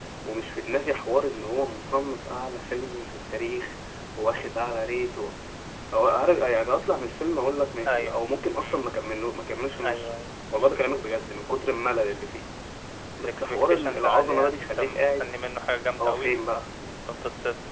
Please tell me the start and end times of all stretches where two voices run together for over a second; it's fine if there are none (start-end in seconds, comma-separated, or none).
13.2-15.3